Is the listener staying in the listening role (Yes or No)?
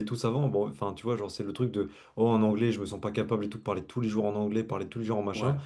Yes